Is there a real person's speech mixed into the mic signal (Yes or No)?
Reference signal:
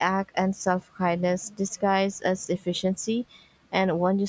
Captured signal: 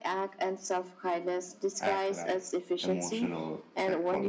Yes